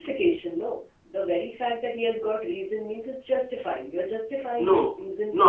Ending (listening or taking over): taking over